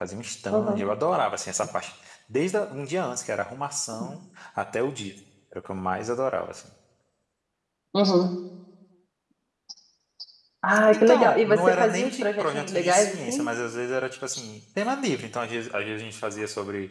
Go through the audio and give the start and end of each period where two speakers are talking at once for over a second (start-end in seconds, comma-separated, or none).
10.9-13.5